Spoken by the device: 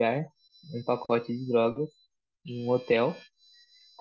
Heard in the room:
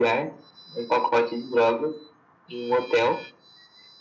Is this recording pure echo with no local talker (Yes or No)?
Yes